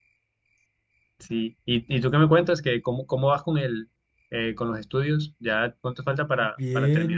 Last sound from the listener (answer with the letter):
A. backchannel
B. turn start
B